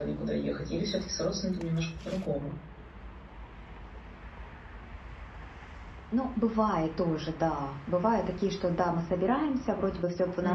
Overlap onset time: none

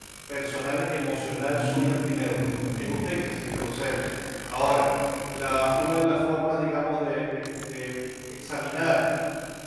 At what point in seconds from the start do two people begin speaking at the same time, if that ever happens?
1.4 s

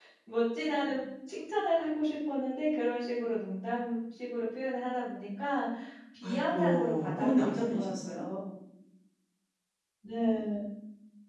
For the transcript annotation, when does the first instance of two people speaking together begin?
6.2 s

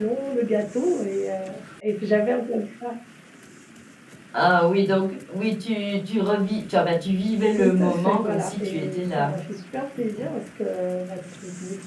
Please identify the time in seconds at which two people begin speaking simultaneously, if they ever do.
7.5 s

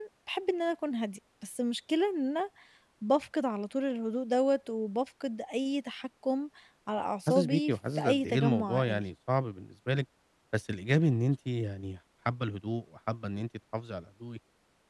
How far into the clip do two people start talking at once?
7.3 s

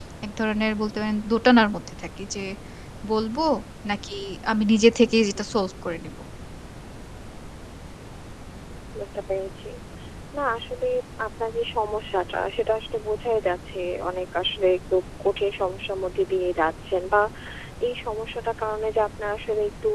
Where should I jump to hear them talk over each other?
none

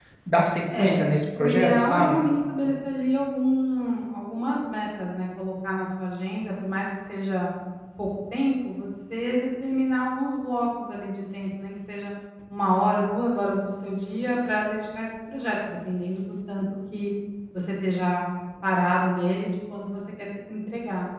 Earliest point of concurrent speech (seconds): 0.8 s

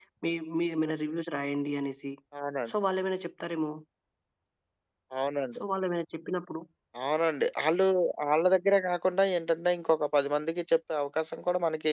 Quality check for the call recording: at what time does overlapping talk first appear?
none

